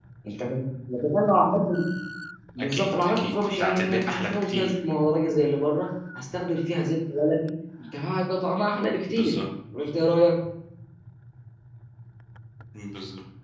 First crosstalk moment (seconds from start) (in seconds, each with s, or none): 2.7 s